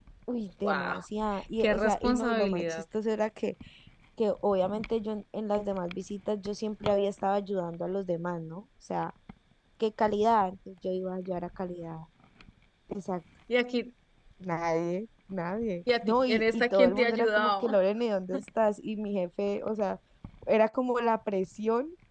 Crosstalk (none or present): present